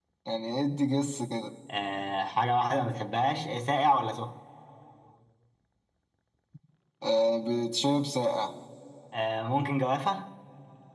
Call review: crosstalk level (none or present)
none